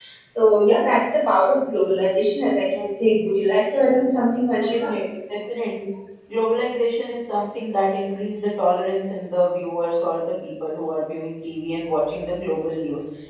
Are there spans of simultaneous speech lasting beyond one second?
No

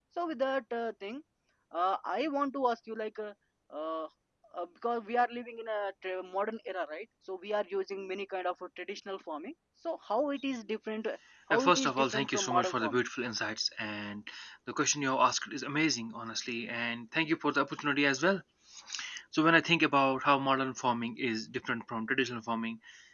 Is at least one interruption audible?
Yes, from 11.5 s

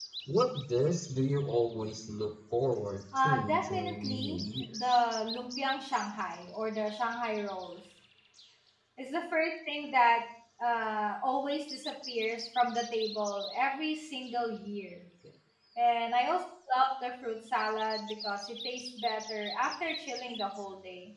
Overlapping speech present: Yes, from 3.1 s

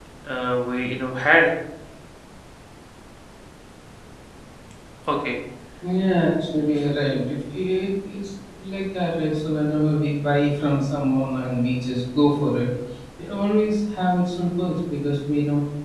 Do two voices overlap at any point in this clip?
No

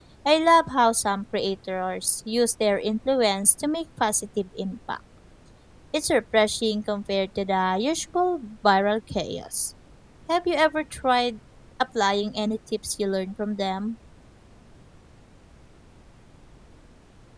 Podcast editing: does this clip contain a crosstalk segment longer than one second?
No

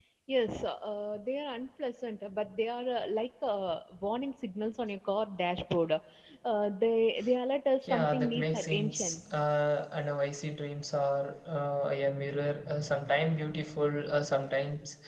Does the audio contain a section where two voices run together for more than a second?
Yes, from 7.8 s

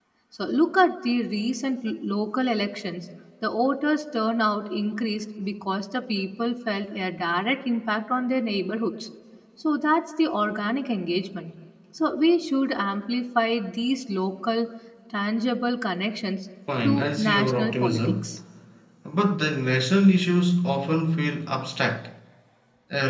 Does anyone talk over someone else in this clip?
Yes, from 16.7 s

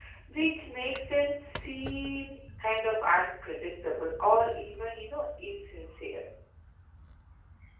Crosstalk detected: No

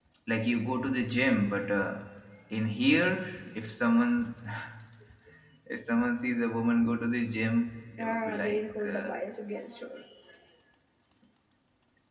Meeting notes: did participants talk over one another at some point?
Yes, from 8.0 s

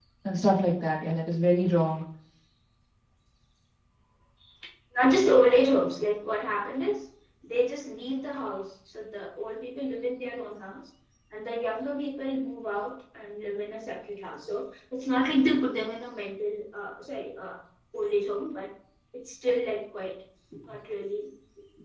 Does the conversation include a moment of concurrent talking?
No

